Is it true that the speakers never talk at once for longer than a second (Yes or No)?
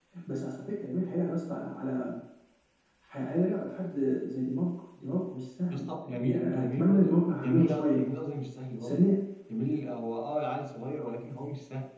No